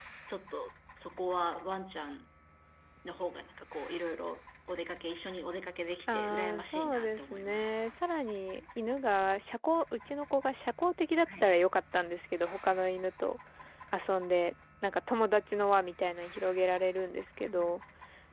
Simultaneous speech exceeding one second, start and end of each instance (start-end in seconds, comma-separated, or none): 6.1-7.7